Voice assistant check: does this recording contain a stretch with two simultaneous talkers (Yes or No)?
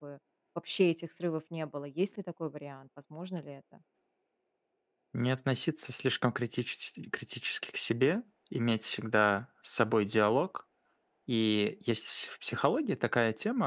No